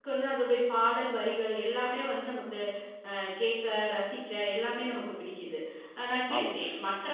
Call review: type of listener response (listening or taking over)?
listening